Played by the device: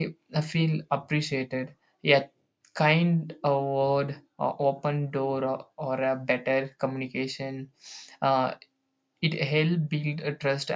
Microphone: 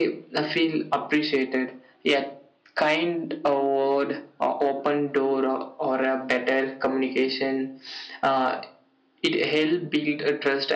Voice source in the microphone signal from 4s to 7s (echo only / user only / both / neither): echo only